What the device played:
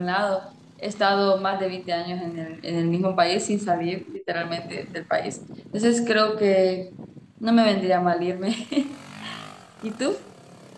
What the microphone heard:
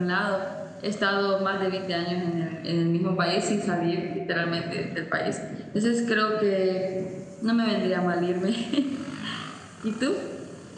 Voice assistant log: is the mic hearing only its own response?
Yes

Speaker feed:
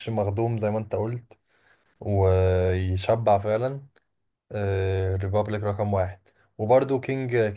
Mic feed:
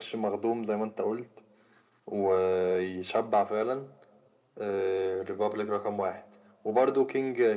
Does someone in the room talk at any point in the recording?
No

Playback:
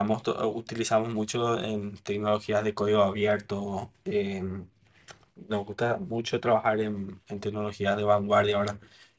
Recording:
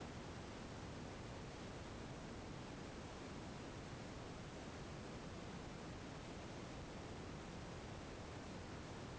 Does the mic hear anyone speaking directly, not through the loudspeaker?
No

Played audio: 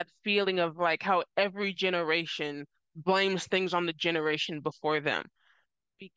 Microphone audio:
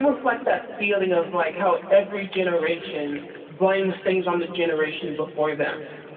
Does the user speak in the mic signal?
No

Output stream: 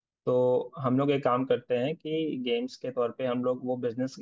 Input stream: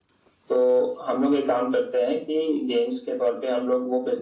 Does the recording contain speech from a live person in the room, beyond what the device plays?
No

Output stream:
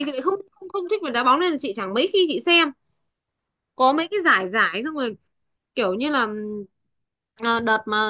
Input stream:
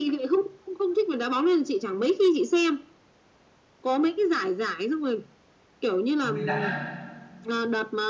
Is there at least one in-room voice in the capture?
Yes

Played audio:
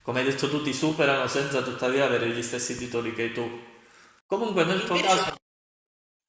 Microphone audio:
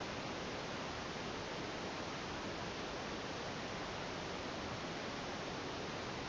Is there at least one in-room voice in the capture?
No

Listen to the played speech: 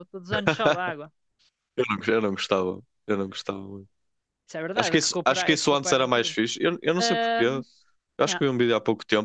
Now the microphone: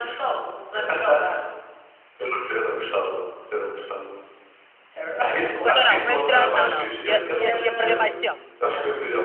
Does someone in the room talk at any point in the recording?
Yes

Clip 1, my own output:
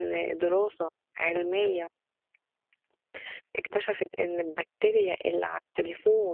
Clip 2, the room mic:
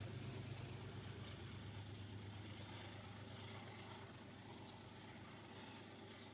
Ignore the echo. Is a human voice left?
No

